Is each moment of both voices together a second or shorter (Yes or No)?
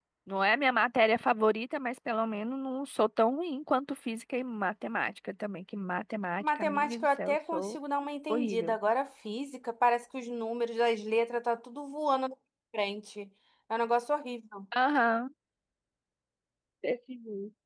No